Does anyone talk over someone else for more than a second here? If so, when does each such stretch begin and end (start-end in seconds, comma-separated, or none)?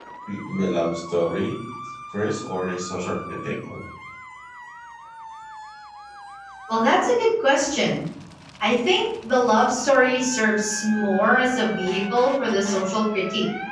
none